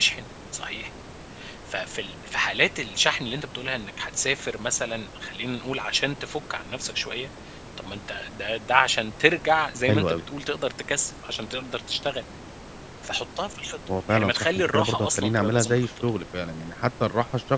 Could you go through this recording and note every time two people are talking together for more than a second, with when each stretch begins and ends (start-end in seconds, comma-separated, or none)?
14.1-15.9